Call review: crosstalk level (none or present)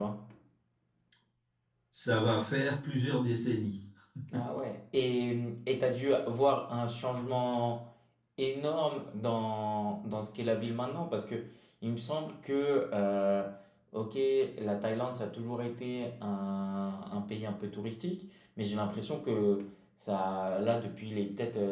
none